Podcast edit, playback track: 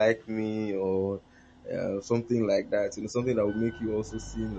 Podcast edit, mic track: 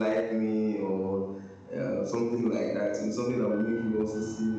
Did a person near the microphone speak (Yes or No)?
No